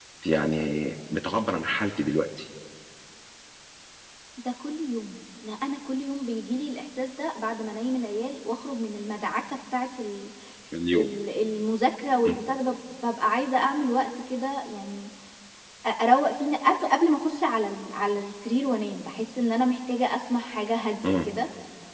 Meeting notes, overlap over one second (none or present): none